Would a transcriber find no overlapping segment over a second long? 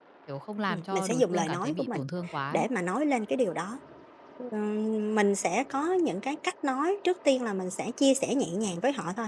No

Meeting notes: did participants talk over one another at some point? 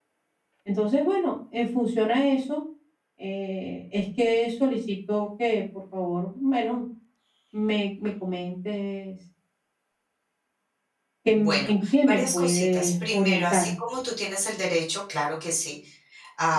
Yes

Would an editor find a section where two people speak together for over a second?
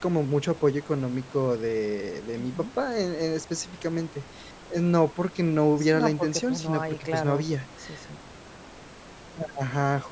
Yes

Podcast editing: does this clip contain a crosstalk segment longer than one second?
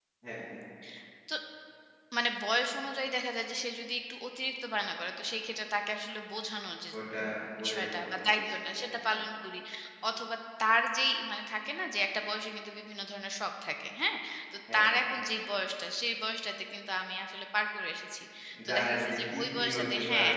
Yes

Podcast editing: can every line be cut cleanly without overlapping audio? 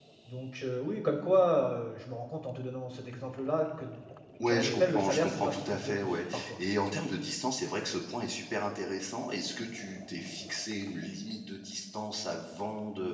No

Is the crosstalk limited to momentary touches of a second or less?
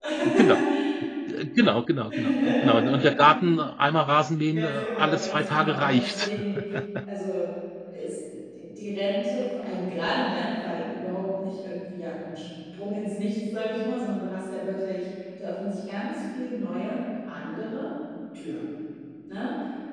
No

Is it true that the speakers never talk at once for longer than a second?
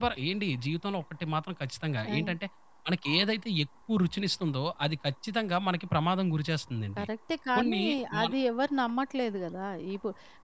Yes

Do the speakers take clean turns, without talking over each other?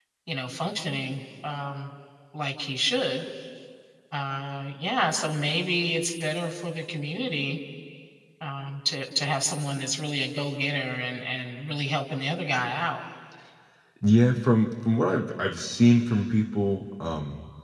Yes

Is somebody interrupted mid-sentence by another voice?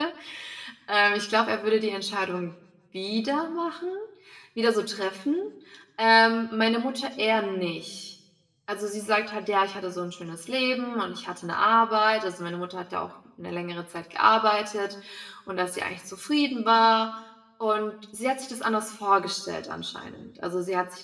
No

